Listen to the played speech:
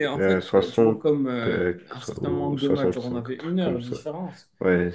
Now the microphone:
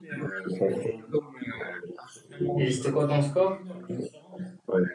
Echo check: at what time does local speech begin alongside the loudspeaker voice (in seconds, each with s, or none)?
2.5 s